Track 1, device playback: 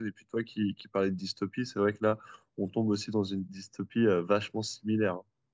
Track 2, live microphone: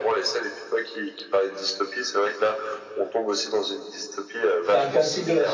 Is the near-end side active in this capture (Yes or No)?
Yes